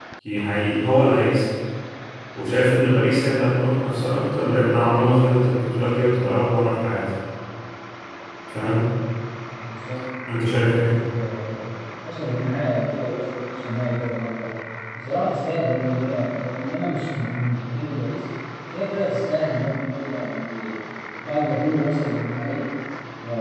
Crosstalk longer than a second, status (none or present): none